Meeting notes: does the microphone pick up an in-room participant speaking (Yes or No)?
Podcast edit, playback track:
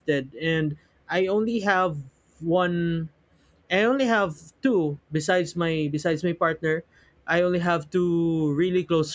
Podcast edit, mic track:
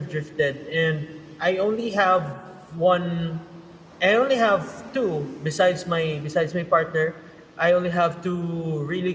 No